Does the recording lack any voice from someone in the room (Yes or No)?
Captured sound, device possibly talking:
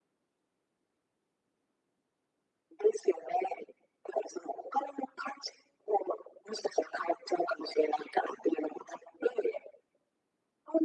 Yes